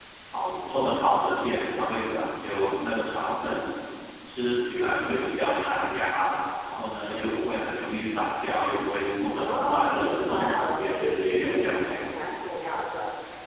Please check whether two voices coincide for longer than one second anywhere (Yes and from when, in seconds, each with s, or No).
Yes, from 9.3 s